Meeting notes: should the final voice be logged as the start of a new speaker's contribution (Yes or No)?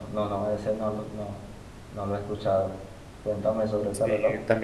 Yes